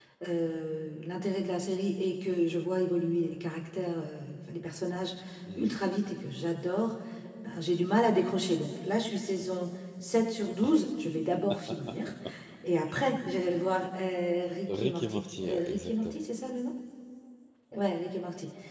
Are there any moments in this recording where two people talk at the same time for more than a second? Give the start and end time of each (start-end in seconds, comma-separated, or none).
14.8-16.2